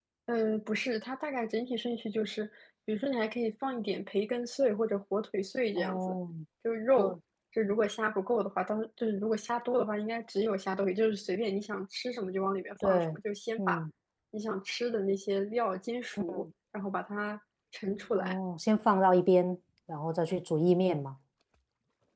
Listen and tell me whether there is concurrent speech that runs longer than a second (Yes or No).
No